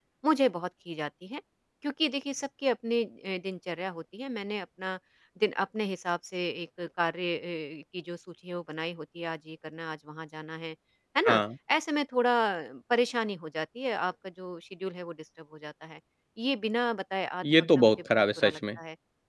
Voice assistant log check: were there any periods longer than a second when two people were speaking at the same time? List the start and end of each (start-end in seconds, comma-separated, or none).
17.4-18.8